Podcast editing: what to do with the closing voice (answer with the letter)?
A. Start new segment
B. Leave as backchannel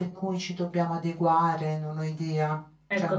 A